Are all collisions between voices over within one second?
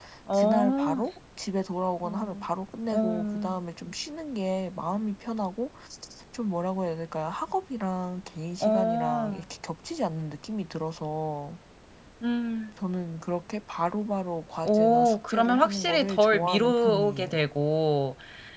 No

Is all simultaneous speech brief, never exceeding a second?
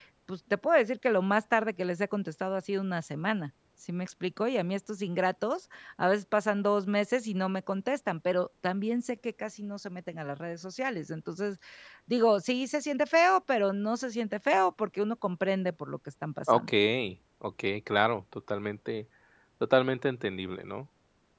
Yes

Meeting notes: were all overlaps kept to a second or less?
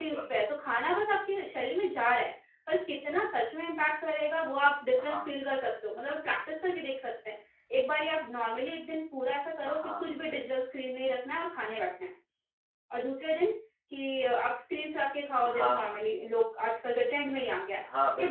Yes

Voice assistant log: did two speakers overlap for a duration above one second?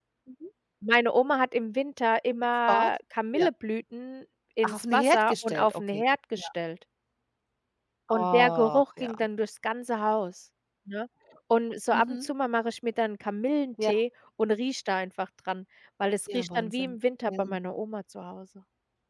Yes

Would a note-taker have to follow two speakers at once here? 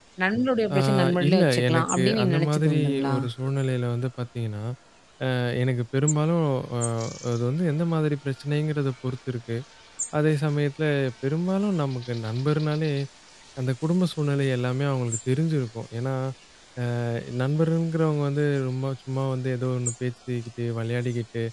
Yes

